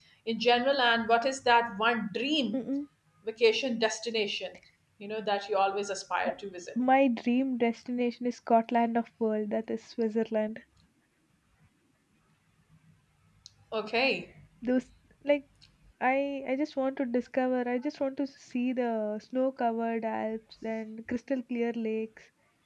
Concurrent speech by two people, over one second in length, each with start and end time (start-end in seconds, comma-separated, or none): none